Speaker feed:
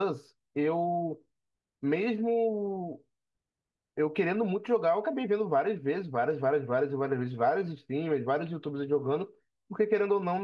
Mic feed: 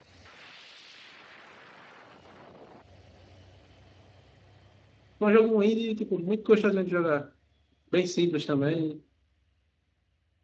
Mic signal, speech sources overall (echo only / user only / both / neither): user only